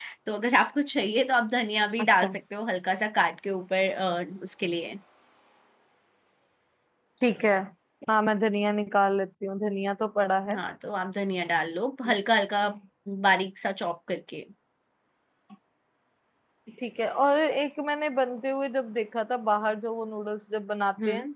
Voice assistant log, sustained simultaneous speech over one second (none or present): none